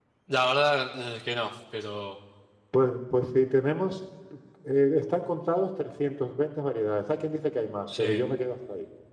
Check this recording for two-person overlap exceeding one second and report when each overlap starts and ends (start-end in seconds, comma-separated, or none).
none